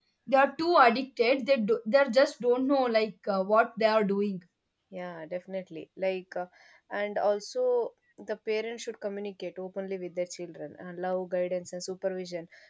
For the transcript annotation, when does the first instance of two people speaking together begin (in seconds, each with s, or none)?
none